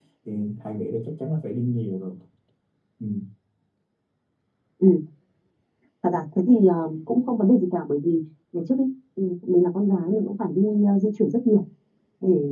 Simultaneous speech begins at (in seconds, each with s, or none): none